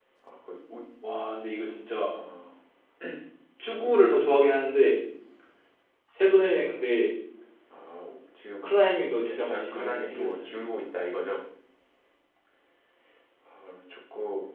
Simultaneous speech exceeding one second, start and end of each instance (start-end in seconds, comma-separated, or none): 9.2-10.5